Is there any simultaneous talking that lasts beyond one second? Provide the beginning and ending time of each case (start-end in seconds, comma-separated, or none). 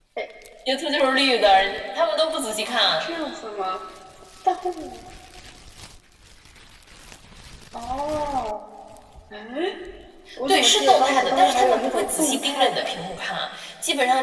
10.5-12.9